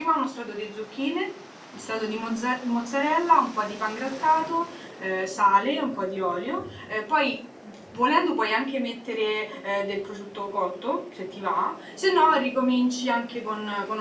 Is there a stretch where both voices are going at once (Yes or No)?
No